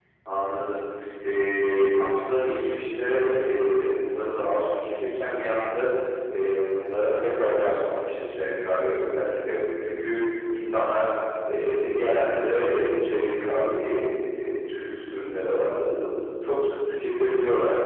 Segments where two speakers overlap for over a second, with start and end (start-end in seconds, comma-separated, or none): none